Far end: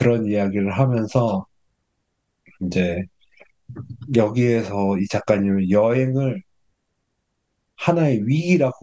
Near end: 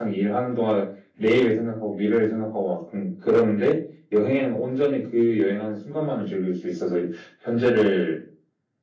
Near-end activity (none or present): present